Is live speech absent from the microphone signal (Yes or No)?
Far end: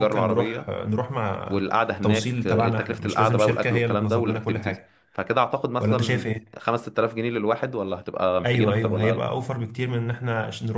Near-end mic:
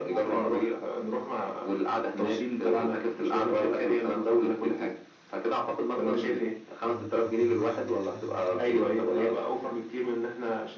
No